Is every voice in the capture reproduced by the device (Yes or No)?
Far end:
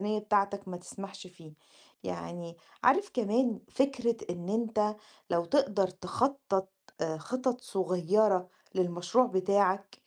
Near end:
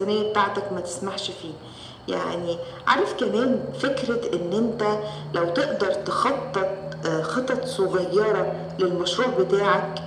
Yes